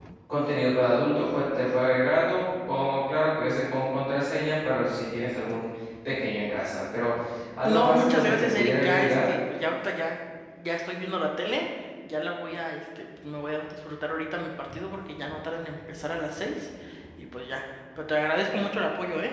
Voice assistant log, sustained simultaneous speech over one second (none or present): present